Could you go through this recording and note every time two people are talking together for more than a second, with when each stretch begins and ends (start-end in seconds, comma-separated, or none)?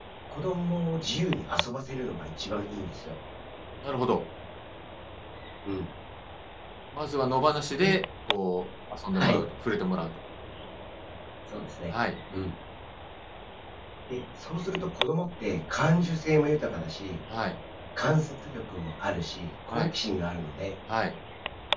none